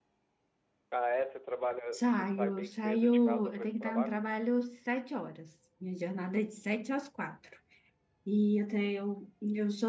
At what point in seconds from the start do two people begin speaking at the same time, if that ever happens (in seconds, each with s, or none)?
1.9 s